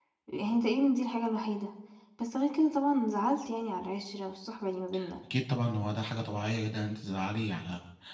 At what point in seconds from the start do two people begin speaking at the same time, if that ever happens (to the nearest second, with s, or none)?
none